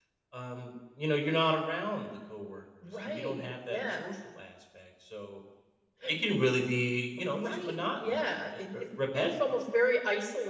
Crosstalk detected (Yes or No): Yes